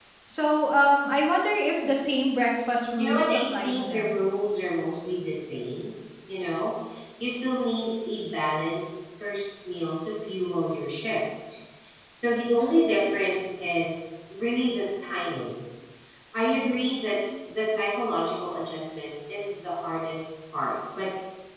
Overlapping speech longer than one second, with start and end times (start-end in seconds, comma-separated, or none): 3.0-4.2